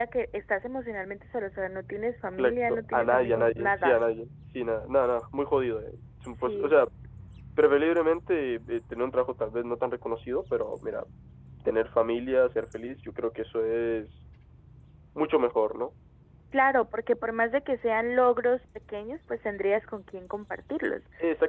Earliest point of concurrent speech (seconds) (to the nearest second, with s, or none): 2 s